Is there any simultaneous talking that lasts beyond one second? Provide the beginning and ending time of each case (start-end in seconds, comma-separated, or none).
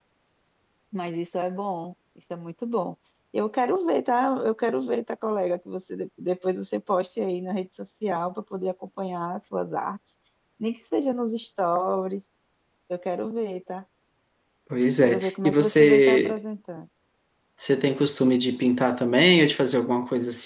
15.0-16.4